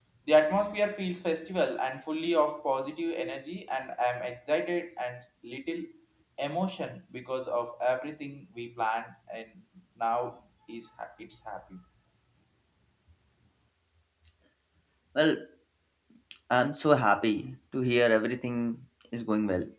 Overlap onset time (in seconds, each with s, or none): none